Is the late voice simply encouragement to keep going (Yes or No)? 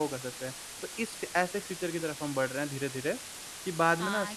No